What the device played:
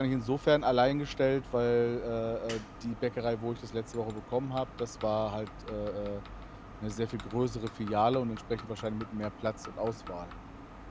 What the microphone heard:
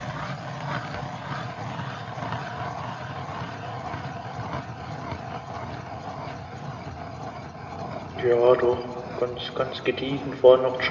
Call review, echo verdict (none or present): none